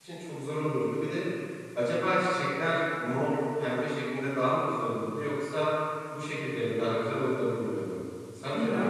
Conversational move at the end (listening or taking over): taking over